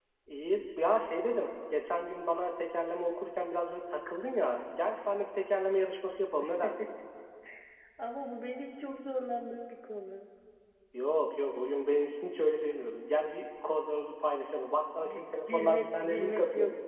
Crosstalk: present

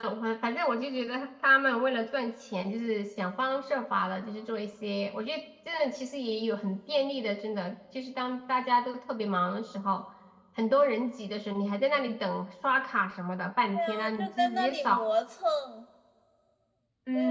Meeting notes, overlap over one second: present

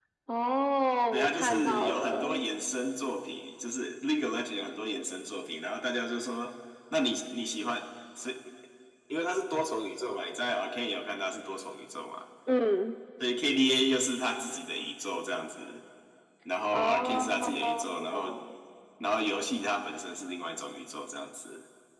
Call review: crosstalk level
present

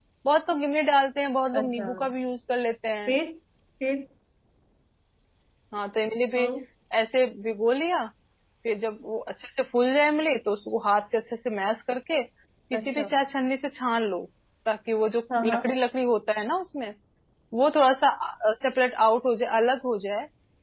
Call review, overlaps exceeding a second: none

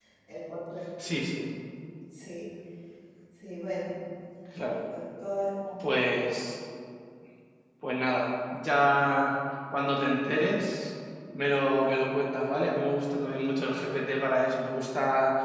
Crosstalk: none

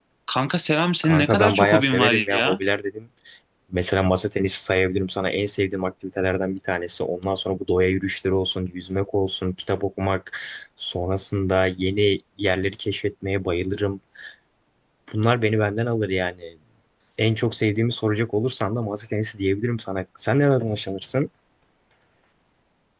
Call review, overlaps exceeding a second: present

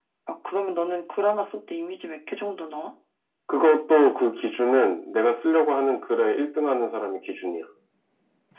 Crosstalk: none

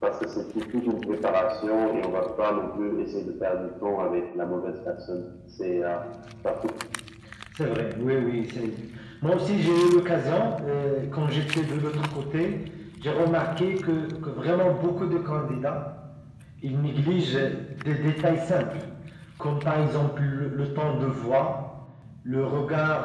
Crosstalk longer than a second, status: none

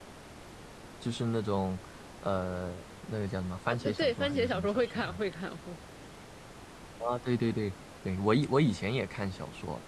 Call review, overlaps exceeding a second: present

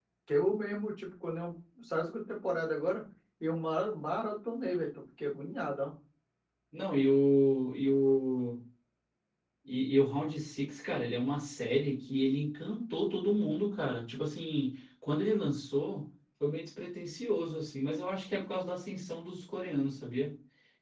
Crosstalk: none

